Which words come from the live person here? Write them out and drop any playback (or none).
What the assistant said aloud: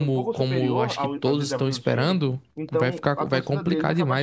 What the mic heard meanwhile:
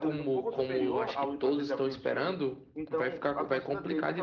none